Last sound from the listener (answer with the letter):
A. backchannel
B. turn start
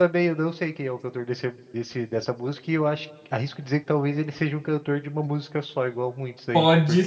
B